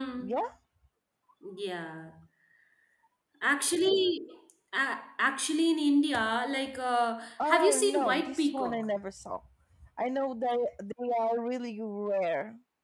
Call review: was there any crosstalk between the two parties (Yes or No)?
Yes